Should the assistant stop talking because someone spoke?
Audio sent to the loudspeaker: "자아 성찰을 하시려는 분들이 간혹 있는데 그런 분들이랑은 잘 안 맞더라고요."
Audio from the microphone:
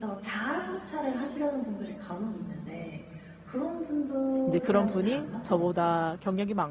Yes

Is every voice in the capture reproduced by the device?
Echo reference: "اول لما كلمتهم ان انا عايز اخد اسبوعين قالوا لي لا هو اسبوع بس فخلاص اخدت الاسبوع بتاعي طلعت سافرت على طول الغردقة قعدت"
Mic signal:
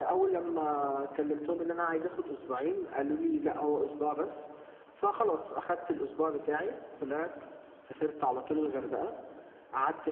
Yes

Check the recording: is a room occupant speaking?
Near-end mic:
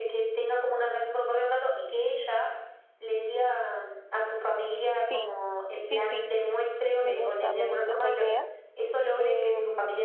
Yes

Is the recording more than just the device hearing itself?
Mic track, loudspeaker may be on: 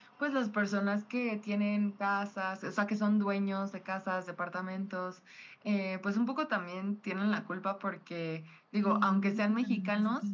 Yes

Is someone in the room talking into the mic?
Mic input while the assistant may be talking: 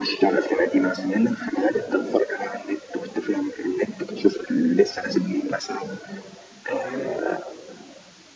Yes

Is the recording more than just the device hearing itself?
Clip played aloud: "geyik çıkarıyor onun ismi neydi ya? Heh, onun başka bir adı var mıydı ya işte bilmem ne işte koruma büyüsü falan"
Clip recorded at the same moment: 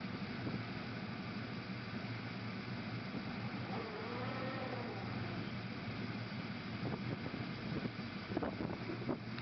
No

